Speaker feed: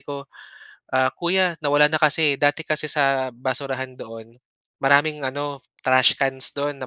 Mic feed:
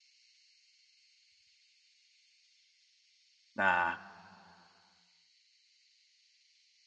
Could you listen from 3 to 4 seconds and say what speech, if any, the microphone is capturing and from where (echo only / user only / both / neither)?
user only